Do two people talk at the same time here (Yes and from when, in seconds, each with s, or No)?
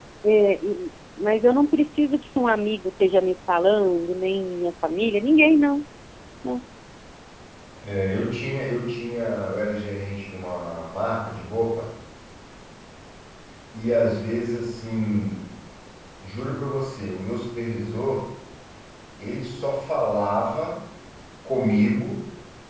No